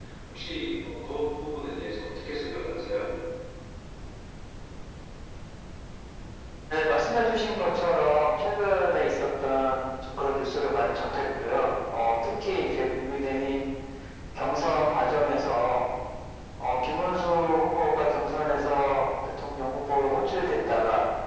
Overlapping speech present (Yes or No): No